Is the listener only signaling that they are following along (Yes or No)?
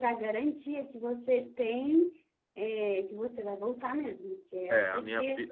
No